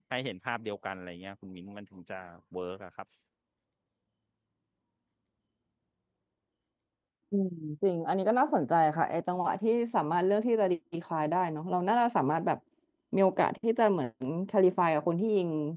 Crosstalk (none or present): none